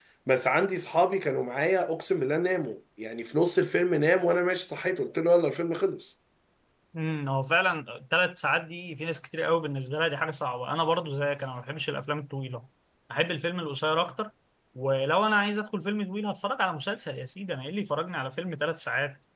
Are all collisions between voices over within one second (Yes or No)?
Yes